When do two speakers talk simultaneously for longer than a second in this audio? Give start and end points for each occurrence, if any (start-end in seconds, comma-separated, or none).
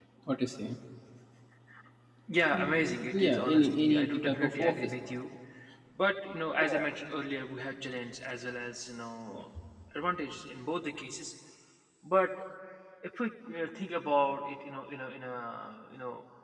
2.5-5.1